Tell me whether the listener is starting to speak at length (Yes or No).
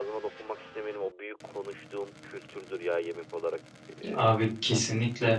Yes